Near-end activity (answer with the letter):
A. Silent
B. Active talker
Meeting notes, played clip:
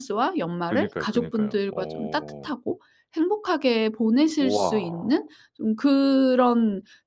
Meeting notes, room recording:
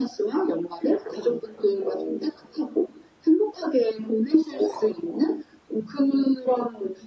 A